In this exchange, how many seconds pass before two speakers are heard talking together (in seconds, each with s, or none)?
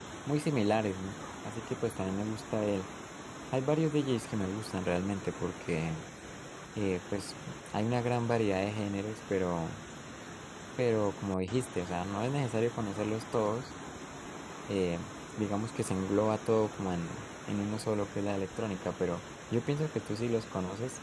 none